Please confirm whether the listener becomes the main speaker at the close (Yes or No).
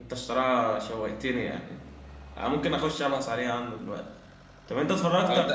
No